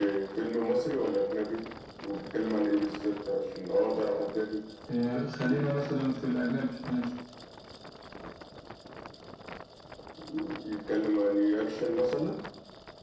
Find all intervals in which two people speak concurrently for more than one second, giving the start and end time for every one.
none

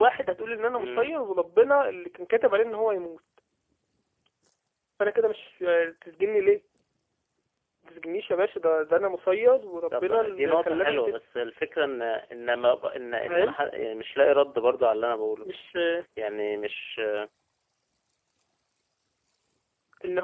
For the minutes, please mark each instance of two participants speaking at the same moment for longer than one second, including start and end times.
9.9-11.2

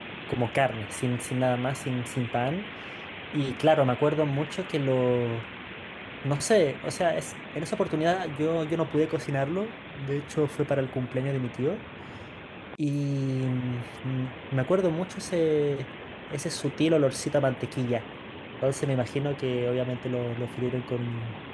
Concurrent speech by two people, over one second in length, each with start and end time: none

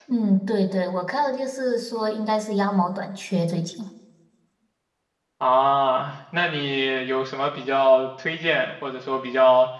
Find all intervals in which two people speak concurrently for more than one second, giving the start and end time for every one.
none

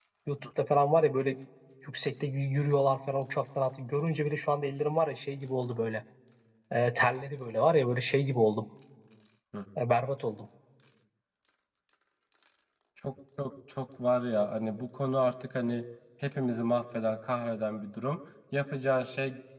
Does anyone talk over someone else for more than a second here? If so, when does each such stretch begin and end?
none

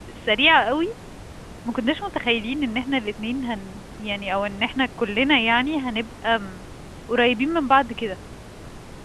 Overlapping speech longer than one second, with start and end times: none

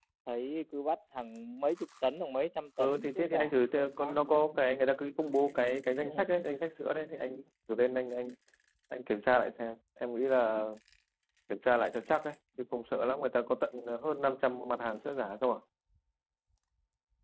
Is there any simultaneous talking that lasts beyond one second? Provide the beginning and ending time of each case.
2.8-4.2

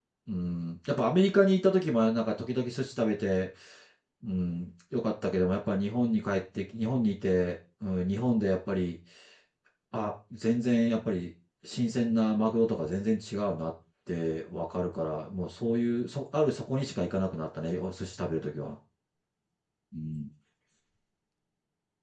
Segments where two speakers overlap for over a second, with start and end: none

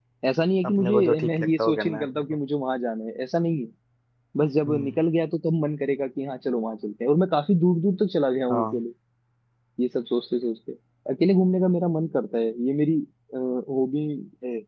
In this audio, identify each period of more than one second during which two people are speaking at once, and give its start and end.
0.7-2.4

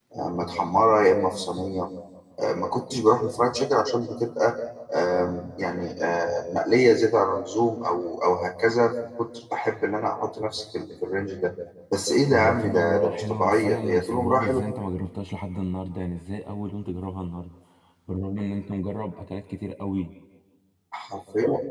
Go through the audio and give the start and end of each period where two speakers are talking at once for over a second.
12.3-14.8

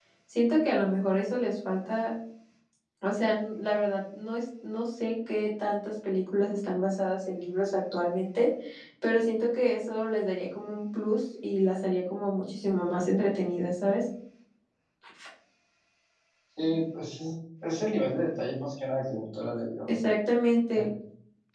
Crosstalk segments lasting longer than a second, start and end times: none

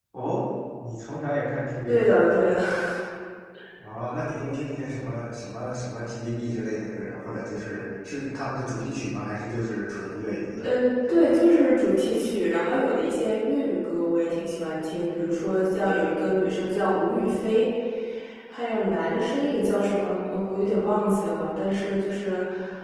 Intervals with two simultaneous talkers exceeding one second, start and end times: none

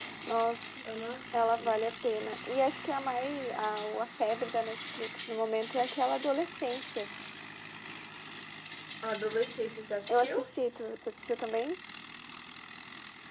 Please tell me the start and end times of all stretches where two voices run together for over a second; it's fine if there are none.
none

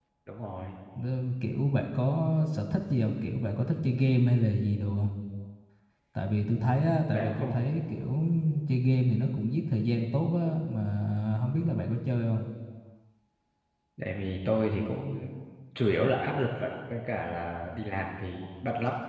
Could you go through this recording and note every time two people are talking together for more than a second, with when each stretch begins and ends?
none

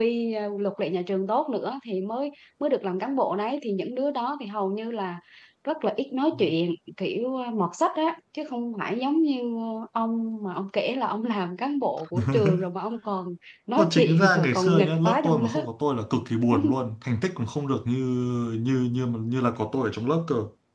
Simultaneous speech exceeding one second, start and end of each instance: 13.8-15.7

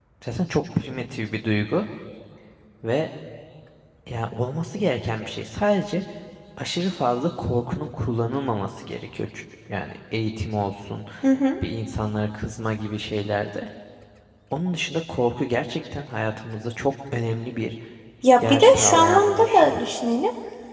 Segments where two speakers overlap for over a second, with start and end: 18.4-19.8

